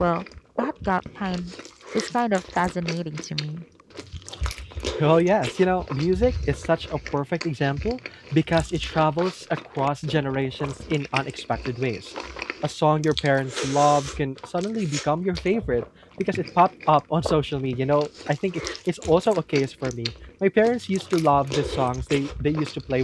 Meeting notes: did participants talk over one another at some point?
No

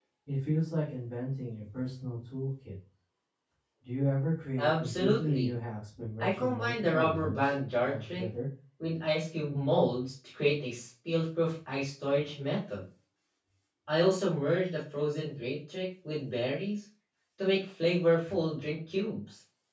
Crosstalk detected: Yes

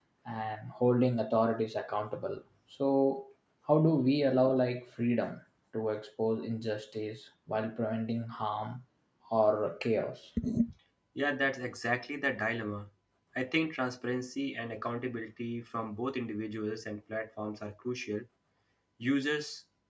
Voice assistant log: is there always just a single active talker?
Yes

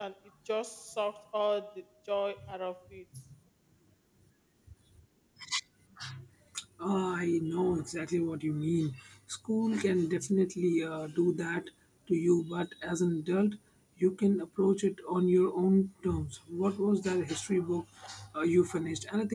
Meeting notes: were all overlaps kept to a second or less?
Yes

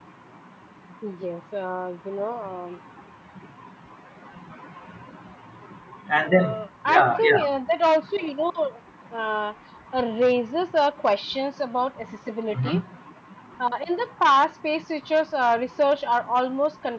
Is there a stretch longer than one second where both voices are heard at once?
Yes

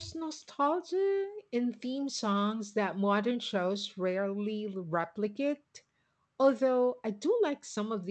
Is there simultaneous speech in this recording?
No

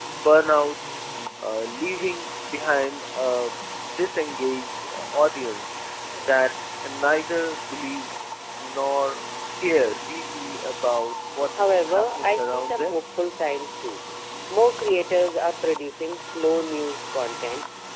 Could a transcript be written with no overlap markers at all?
No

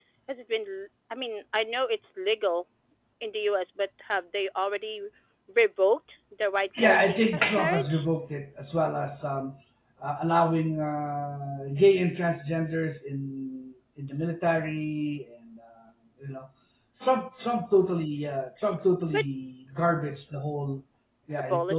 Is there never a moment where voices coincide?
No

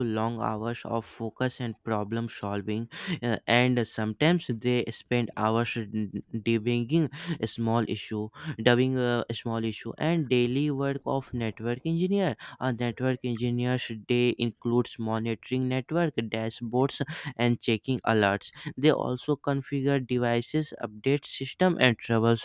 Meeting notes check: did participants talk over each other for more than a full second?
No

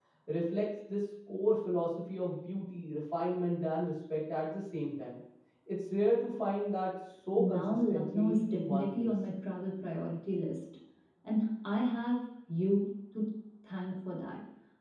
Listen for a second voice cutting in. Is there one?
Yes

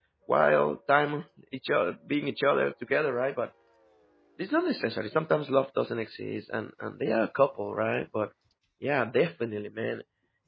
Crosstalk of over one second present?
No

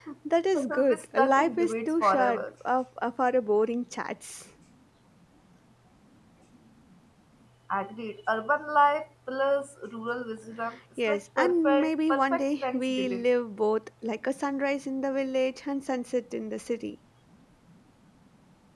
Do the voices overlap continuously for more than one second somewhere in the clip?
Yes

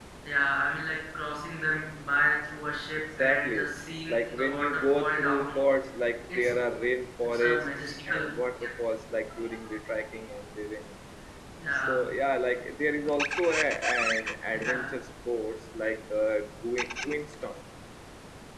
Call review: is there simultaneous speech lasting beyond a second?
Yes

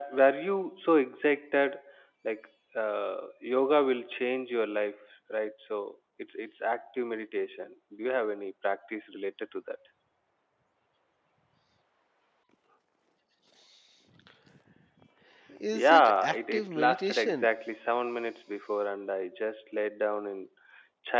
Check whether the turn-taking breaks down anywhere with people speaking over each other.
Yes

